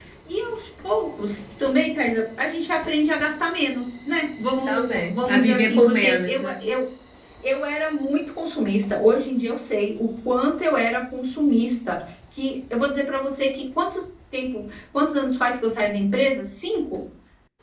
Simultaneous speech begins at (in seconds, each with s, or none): 4.7 s